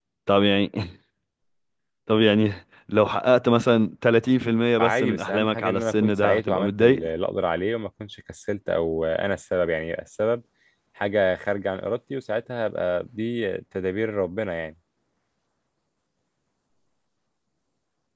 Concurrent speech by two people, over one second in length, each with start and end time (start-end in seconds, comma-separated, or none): 4.8-7.0